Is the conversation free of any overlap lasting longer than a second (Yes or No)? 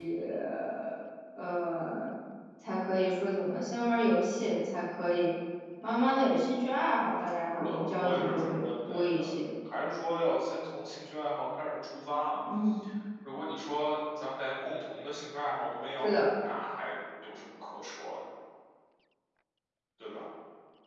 No